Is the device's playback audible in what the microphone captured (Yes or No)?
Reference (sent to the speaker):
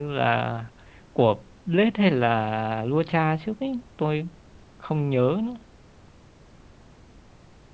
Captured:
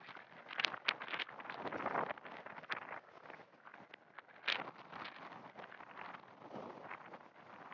No